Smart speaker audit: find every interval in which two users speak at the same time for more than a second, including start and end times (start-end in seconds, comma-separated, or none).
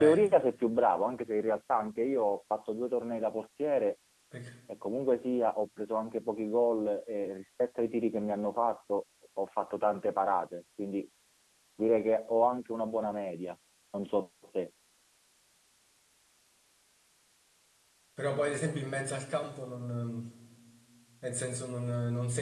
none